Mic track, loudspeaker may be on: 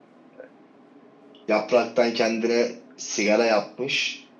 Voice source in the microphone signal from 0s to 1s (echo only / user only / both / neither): neither